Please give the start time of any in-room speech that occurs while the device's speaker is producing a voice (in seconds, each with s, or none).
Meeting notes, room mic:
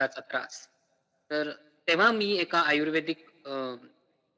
none